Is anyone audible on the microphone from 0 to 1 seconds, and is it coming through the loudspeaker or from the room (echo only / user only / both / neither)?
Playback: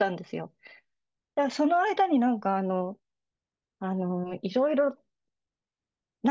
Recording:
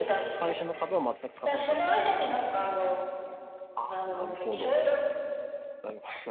both